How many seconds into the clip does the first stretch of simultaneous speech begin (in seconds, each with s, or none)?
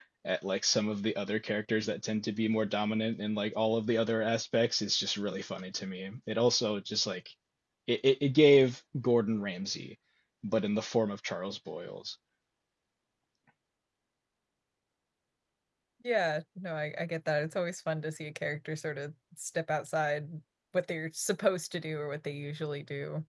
none